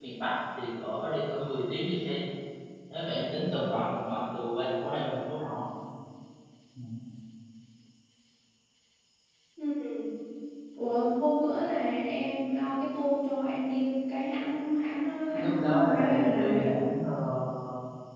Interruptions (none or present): present